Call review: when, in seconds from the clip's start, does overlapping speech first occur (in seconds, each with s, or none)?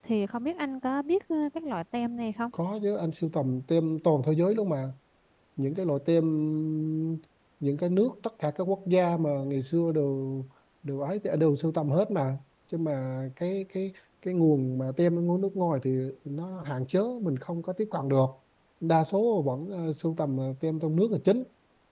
none